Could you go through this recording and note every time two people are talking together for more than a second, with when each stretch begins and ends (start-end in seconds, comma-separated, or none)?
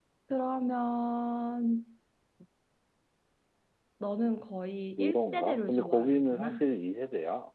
5.0-6.6